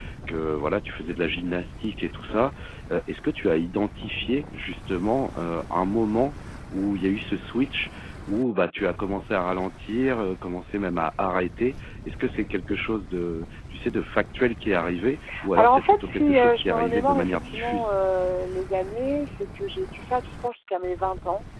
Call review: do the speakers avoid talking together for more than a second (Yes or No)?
No